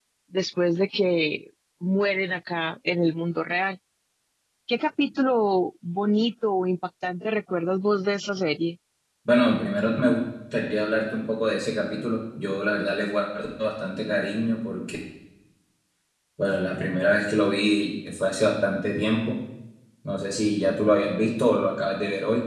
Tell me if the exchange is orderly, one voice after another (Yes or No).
Yes